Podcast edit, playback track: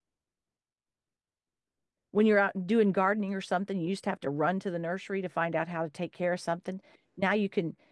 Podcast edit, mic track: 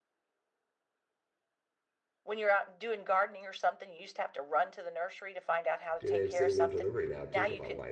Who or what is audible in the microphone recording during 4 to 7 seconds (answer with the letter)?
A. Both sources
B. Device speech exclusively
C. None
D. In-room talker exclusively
A